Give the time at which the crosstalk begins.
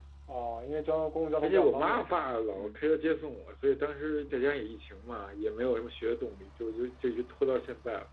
1.4 s

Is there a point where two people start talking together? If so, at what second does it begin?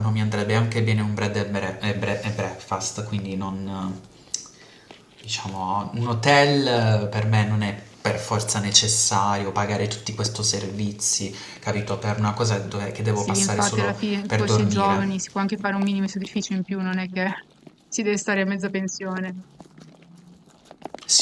13.2 s

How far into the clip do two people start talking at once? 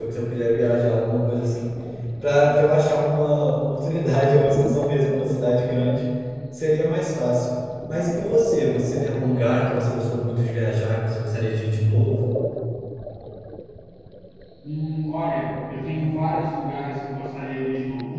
none

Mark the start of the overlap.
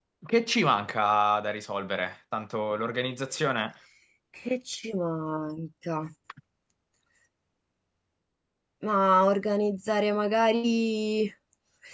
none

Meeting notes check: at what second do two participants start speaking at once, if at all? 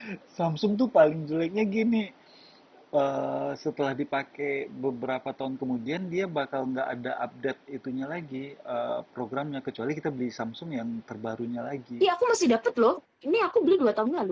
none

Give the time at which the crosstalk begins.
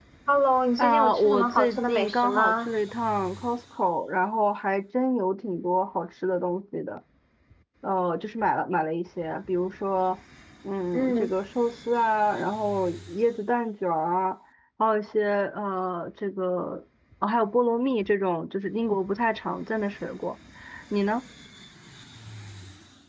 0.8 s

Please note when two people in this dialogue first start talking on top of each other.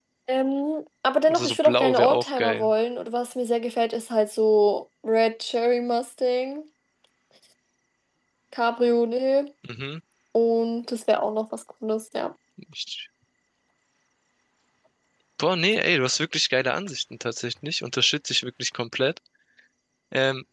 1.3 s

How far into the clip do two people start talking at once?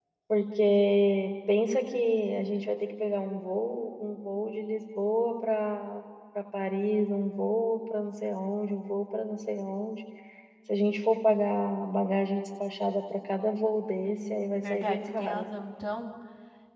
14.1 s

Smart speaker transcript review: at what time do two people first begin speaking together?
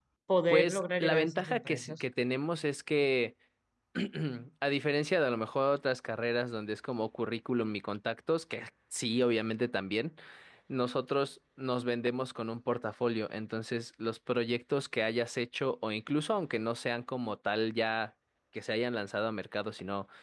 0.5 s

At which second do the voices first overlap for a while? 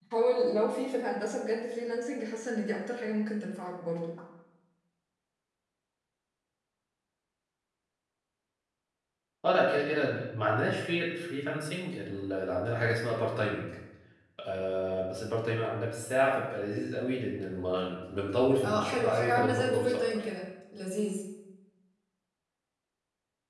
18.6 s

